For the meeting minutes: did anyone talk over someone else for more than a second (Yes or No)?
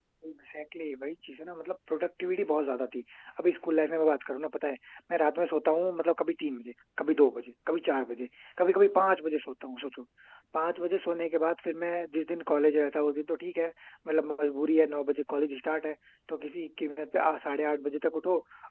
No